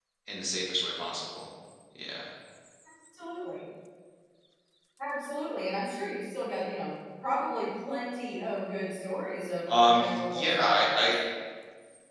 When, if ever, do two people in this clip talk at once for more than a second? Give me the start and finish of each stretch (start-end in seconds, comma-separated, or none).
9.7-11.1